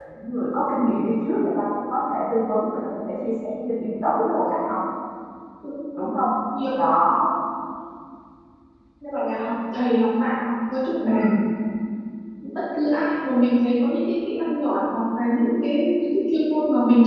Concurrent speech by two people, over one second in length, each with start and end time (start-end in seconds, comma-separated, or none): none